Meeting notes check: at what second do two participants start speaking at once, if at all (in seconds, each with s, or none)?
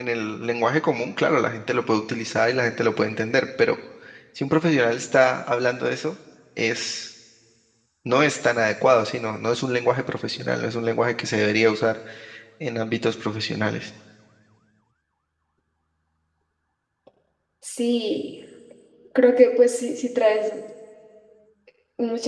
none